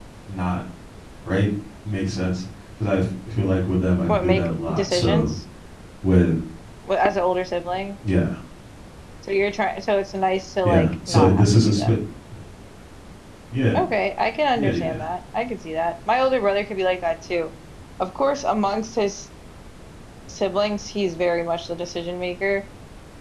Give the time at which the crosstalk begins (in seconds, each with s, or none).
4.1 s